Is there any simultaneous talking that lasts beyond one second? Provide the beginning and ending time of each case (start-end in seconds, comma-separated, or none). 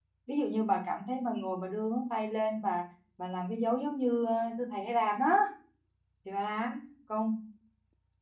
none